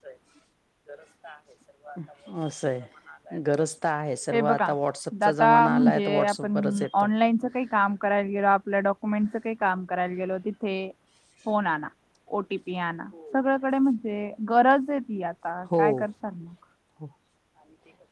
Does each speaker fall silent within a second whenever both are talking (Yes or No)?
No